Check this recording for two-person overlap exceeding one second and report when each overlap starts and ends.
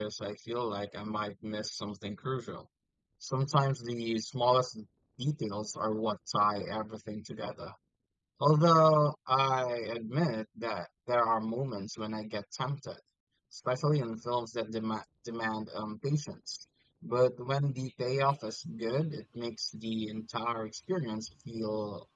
none

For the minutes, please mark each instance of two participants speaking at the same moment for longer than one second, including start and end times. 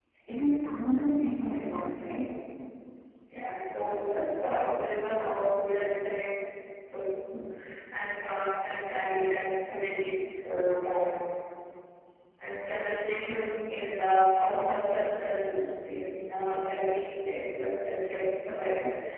none

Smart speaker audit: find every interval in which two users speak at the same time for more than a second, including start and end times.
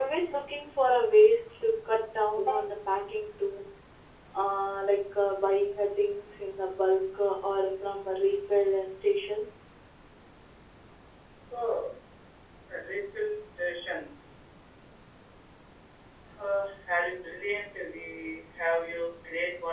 none

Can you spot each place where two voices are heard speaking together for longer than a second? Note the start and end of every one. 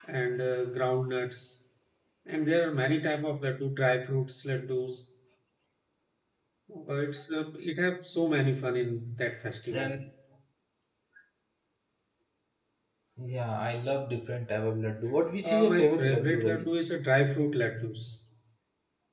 15.4-16.7

